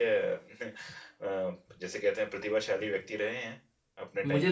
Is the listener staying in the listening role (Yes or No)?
No